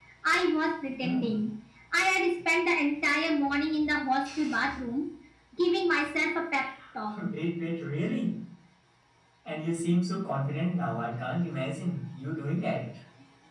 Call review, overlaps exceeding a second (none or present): none